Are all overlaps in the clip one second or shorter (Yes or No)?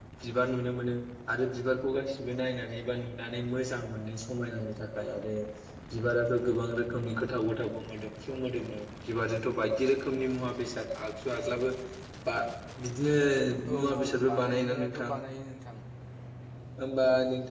No